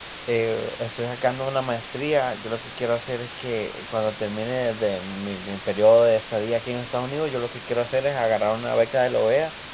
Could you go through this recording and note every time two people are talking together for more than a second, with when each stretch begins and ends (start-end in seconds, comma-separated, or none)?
none